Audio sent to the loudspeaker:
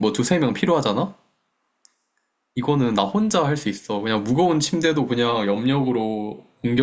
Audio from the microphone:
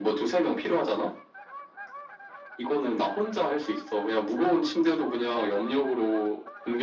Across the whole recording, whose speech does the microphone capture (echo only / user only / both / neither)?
echo only